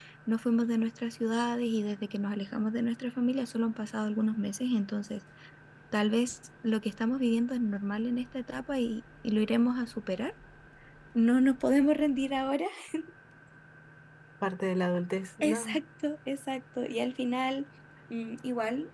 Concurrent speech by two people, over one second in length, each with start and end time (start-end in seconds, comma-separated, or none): none